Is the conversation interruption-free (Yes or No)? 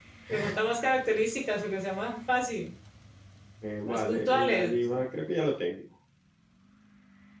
No